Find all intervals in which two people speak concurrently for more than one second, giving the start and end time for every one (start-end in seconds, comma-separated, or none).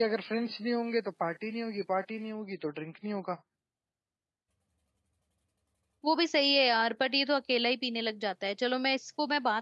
none